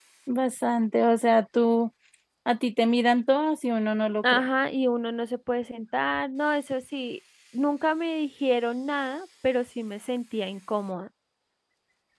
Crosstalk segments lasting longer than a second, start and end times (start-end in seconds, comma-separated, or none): none